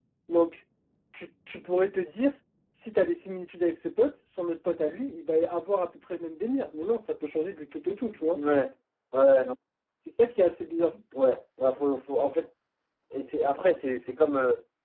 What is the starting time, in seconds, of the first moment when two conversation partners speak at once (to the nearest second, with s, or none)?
none